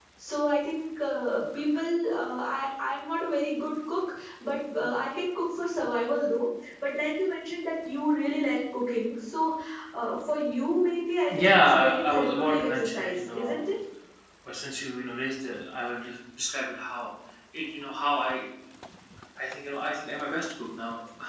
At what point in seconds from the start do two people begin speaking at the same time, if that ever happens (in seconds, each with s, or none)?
11.3 s